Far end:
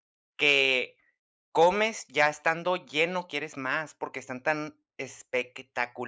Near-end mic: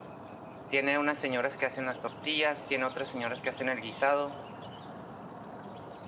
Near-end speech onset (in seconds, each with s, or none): 0.7 s